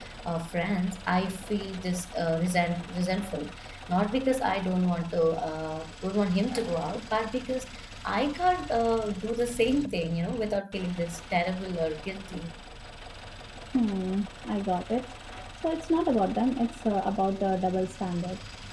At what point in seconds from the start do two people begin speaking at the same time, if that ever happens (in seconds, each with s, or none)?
none